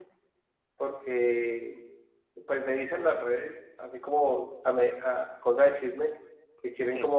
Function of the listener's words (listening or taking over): listening